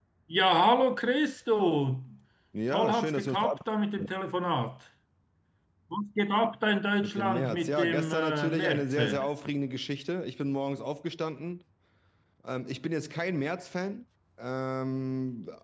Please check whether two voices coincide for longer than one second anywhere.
Yes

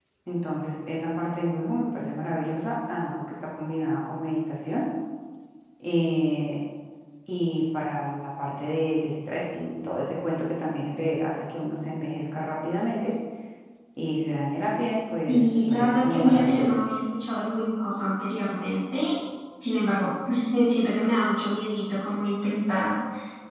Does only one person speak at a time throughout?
No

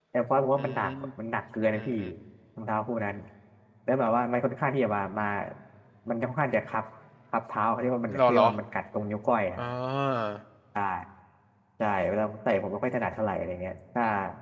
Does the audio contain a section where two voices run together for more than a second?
No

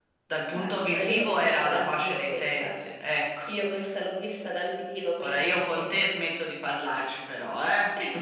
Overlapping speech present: Yes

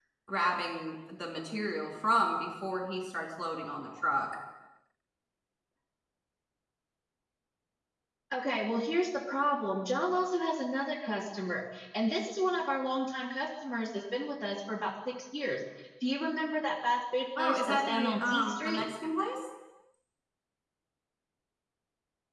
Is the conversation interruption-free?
No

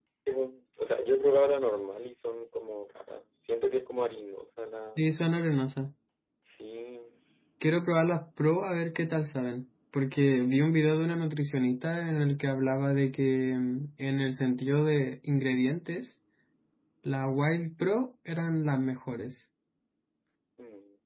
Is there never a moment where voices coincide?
Yes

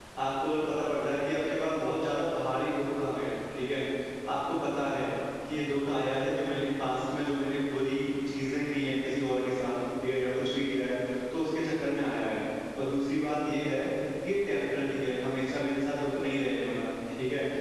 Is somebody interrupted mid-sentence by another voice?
No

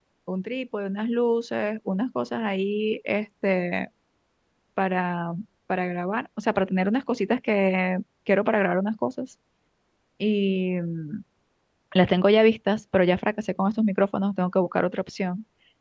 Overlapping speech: No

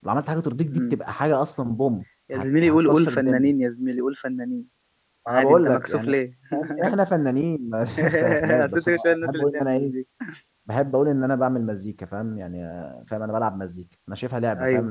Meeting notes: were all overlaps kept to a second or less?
No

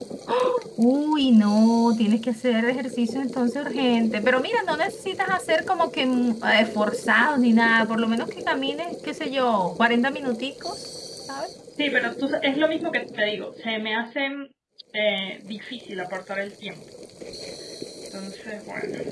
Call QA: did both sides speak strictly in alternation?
Yes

